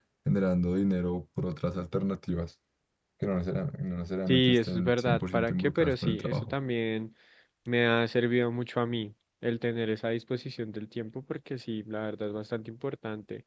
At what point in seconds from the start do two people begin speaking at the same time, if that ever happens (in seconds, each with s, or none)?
4.3 s